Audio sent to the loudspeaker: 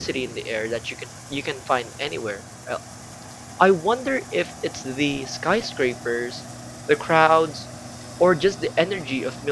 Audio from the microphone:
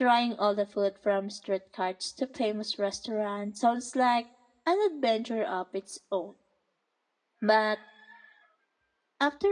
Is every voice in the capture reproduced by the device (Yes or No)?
No